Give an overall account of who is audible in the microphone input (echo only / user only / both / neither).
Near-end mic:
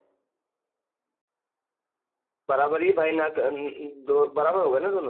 user only